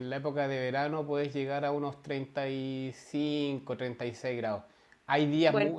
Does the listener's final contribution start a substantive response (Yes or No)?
No